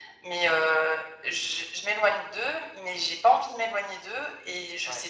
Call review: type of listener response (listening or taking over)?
listening